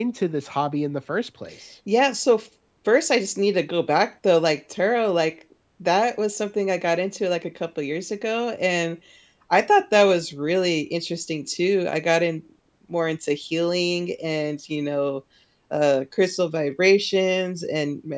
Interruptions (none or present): none